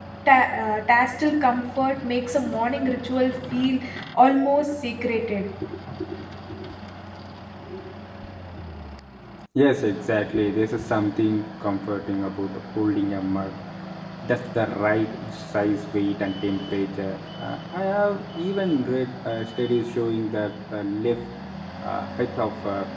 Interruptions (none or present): none